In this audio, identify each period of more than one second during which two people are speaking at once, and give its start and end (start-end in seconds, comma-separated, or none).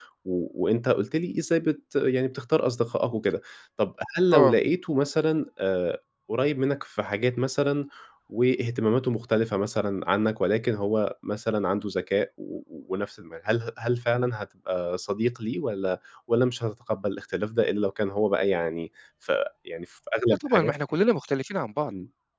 none